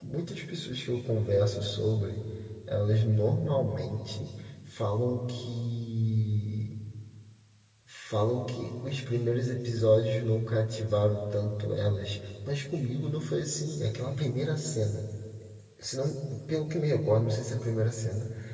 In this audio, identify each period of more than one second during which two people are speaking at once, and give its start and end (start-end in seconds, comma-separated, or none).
none